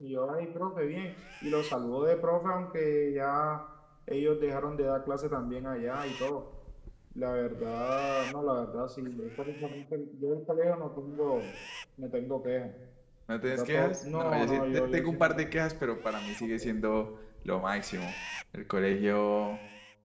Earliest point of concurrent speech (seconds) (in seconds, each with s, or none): 13.5 s